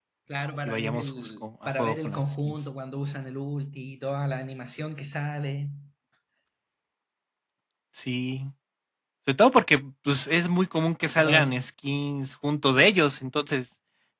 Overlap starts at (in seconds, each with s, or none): 0.6 s